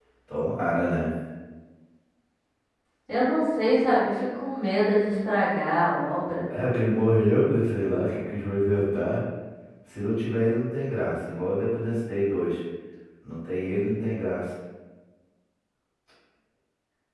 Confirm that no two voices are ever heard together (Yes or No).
Yes